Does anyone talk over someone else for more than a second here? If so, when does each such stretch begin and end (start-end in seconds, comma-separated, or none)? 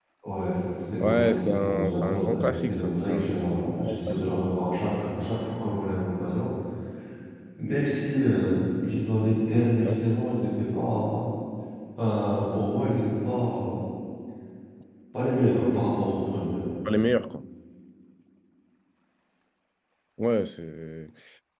1.0-3.3